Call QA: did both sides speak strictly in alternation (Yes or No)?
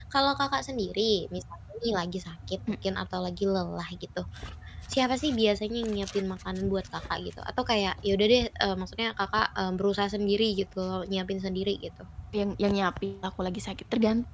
Yes